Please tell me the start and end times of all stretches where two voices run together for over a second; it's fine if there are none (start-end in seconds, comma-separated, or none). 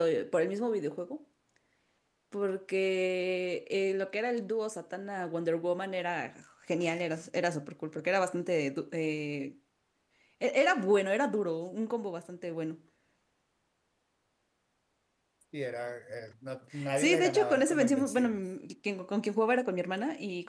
17.0-18.4